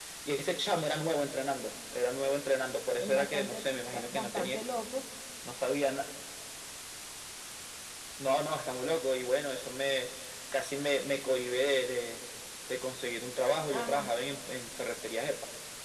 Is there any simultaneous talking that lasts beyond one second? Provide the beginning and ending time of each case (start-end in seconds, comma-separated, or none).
3.2-4.6